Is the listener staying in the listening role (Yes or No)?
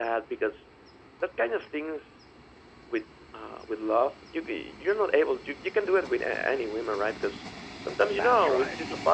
Yes